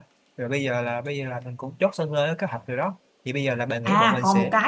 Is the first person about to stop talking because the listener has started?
Yes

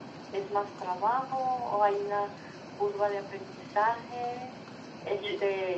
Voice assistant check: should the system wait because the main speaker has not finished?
Yes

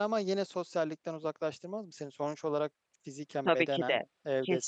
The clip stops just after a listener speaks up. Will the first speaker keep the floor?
No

